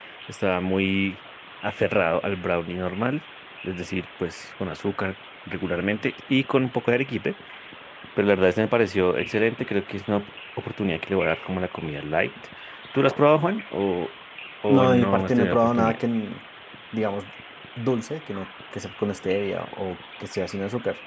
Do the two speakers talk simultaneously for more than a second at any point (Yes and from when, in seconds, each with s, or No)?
Yes, from 14.7 s